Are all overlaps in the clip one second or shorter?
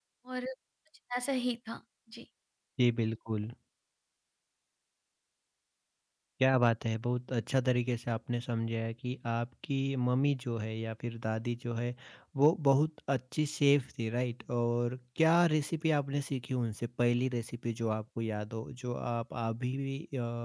Yes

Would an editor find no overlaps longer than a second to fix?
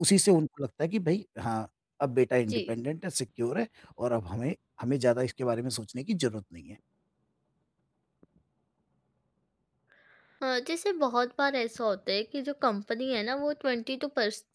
Yes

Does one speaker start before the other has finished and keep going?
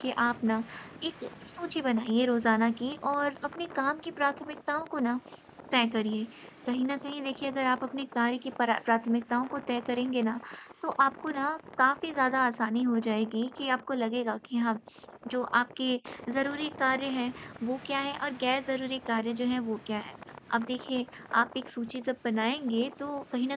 No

